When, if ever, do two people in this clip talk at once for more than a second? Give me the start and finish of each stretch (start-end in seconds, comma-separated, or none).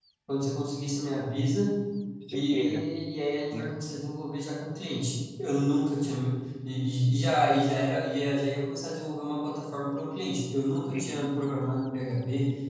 none